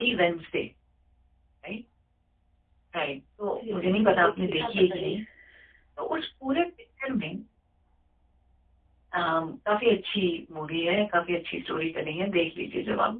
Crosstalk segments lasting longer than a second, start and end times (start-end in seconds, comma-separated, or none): 3.6-5.1